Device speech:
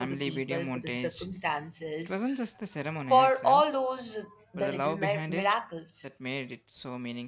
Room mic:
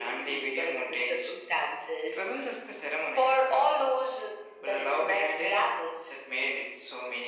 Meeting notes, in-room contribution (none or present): none